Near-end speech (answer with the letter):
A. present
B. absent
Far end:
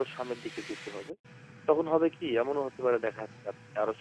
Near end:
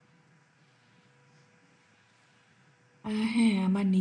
A